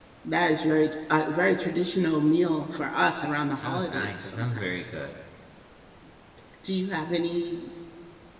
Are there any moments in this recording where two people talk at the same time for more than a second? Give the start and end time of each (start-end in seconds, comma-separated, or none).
3.6-4.9